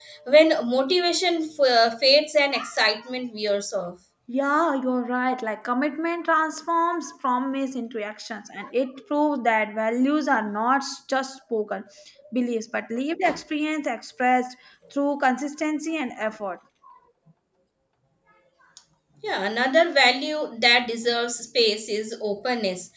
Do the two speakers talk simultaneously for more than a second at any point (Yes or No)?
No